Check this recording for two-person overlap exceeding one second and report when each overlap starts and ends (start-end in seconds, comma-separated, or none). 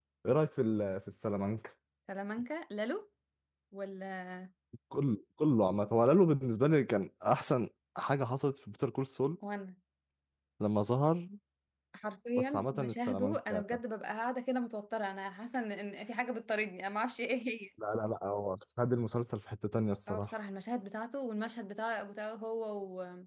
12.4-13.6